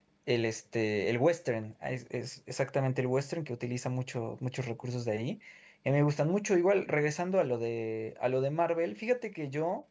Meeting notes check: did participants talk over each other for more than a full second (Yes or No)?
No